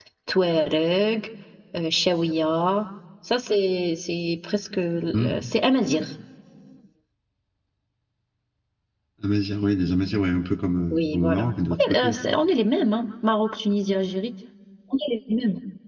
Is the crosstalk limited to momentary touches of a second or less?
No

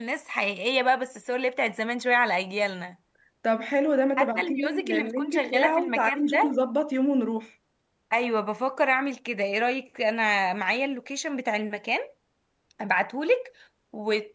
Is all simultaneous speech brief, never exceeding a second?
No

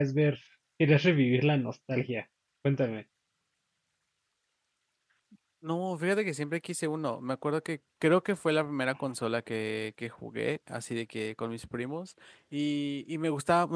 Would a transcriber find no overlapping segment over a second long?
Yes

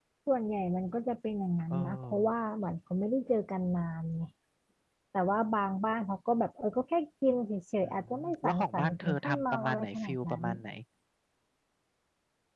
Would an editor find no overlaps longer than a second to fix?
No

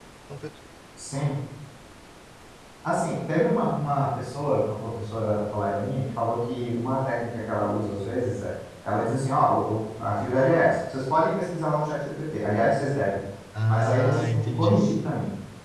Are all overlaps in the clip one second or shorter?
No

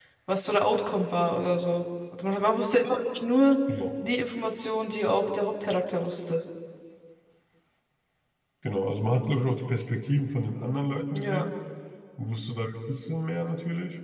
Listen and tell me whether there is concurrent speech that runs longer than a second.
No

